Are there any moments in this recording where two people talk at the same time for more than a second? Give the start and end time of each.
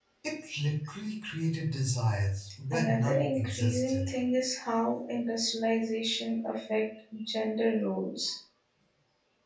2.7-4.1

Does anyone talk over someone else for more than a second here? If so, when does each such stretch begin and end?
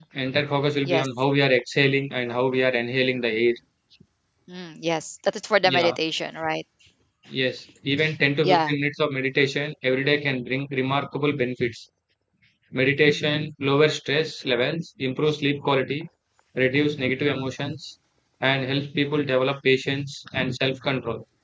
none

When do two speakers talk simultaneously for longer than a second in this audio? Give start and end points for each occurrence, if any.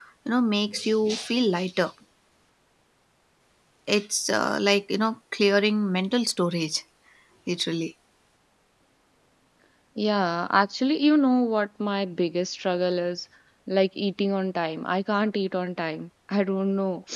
none

